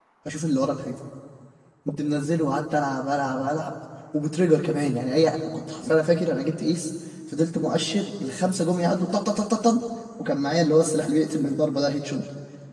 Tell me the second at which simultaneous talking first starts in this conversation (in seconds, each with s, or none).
none